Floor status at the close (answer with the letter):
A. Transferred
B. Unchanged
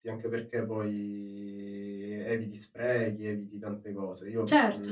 A